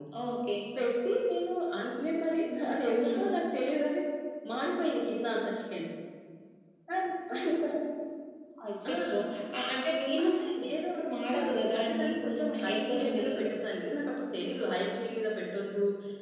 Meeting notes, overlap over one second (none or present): present